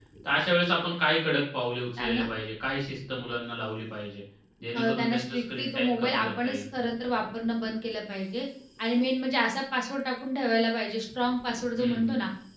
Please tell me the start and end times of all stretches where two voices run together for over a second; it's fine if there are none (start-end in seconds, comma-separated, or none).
4.7-6.6